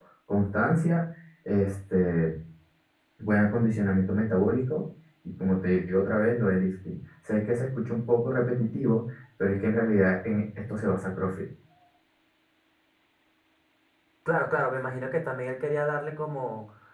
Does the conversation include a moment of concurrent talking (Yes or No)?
No